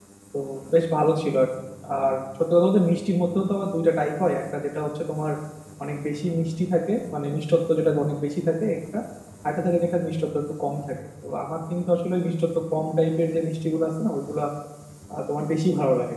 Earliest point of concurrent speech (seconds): none

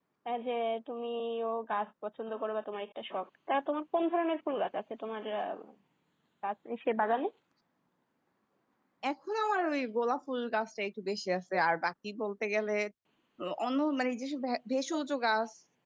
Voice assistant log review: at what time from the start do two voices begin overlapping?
none

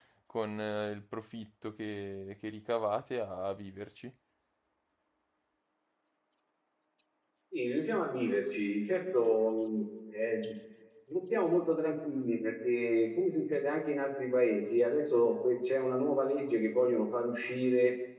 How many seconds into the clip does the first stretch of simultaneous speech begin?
none

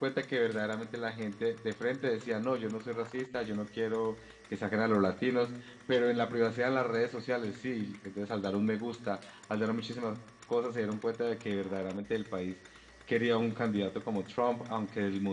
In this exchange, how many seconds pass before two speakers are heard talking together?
none

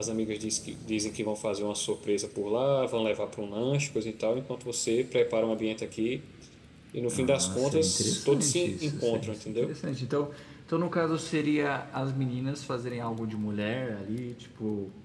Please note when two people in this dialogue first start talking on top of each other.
7.1 s

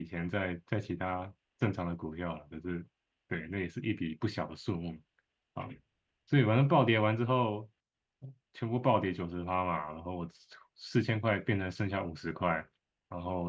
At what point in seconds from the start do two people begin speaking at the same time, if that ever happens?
none

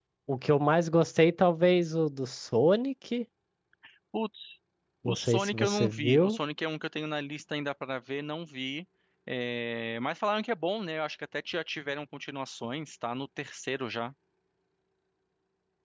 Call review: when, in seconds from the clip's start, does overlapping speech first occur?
5.0 s

